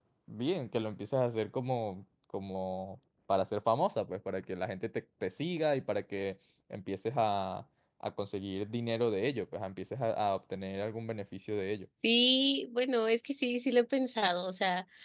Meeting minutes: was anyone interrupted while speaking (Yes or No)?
No